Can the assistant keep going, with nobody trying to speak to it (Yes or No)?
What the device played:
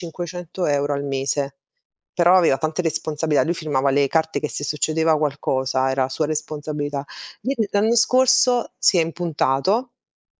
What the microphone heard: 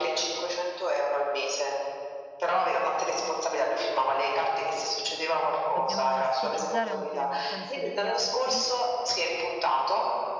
No